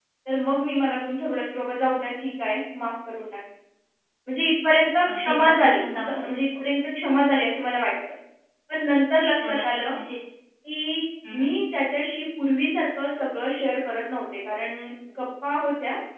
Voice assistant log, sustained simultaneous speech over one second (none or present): present